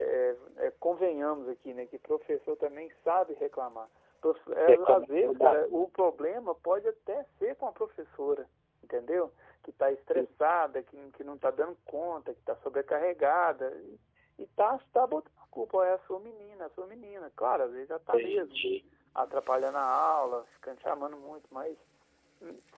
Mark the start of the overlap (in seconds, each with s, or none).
4.7 s